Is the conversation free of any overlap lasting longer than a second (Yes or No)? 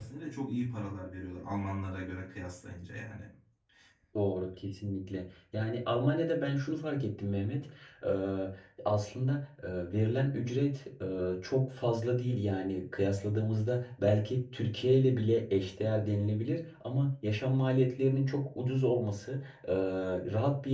Yes